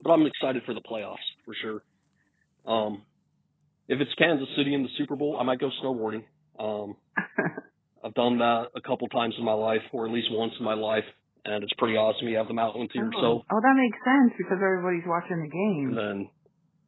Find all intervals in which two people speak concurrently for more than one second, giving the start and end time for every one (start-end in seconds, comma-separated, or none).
none